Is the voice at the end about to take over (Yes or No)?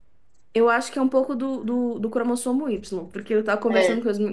No